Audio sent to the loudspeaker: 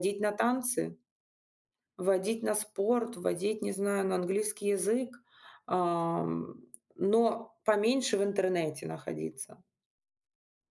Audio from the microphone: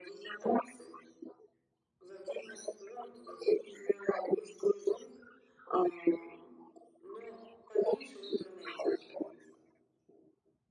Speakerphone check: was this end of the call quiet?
Yes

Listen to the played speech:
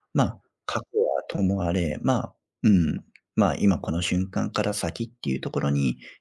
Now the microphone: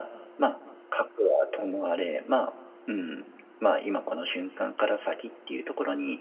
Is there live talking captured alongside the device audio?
No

